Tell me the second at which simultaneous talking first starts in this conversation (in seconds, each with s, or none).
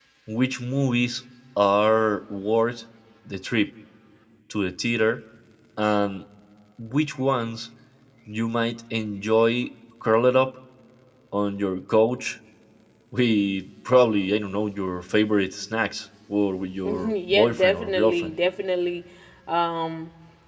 16.9 s